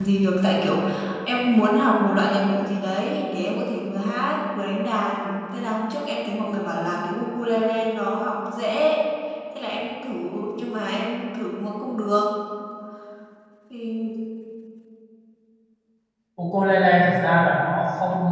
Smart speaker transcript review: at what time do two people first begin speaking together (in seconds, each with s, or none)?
none